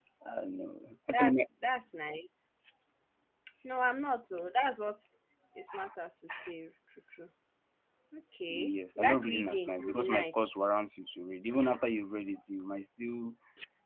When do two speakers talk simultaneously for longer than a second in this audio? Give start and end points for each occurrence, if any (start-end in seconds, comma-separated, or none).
8.5-10.4